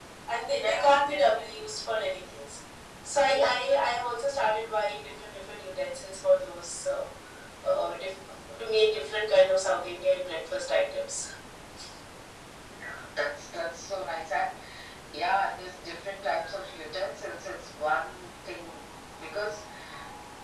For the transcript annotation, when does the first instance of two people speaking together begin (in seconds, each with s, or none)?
0.5 s